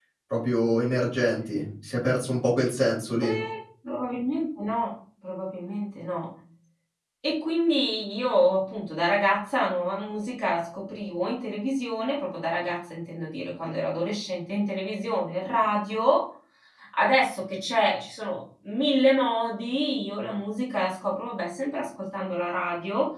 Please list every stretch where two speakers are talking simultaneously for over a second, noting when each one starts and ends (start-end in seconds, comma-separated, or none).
none